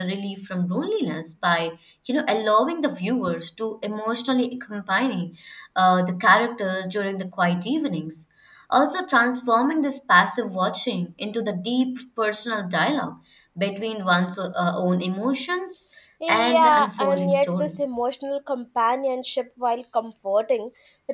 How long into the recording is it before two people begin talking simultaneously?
16.3 s

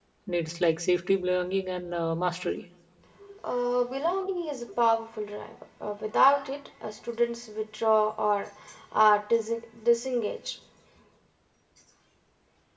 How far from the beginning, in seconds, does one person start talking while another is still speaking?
none

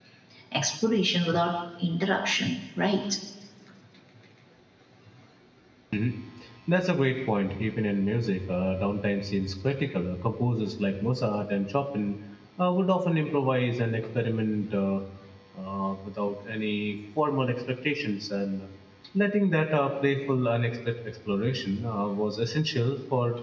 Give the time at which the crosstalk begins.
none

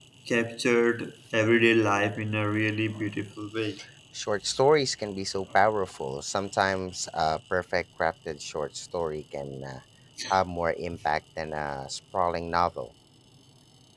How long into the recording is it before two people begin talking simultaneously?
none

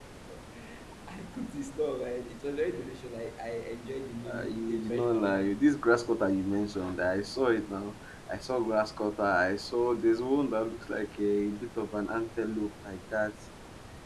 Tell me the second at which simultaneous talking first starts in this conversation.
4.3 s

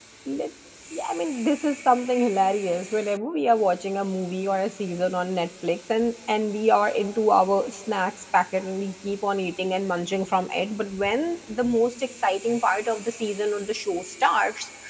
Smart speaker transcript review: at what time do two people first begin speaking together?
none

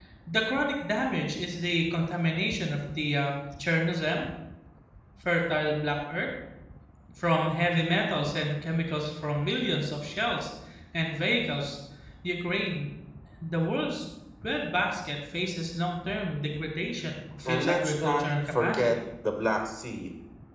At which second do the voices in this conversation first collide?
17.4 s

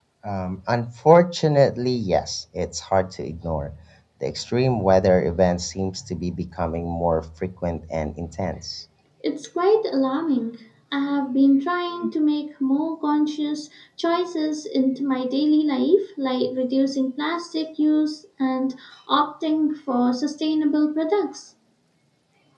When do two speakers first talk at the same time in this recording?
none

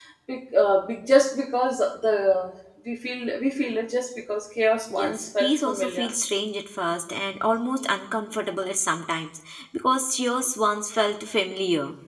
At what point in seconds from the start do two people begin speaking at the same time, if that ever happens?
4.8 s

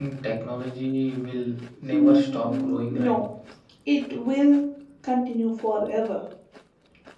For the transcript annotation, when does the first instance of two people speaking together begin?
1.9 s

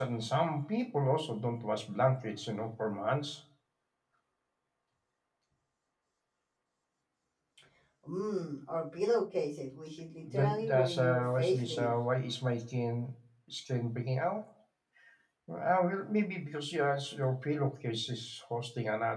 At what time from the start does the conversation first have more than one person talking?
10.3 s

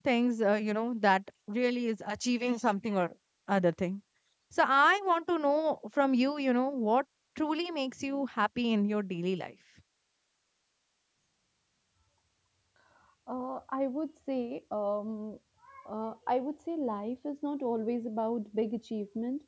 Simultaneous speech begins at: none

